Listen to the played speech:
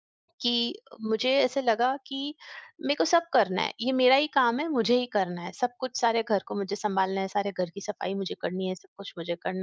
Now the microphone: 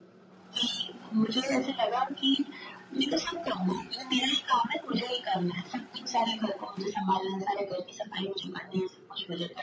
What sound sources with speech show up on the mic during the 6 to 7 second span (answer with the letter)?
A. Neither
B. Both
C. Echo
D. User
C